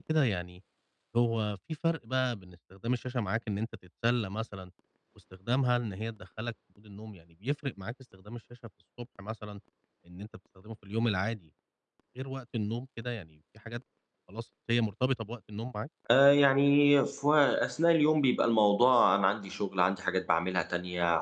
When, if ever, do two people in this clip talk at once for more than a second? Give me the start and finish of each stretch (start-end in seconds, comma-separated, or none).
none